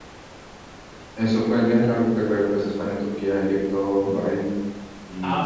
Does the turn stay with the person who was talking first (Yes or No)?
No